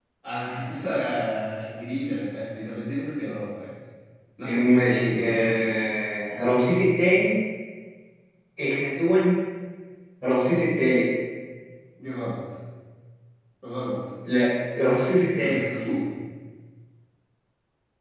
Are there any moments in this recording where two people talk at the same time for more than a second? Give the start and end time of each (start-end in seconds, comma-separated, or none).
4.4-5.7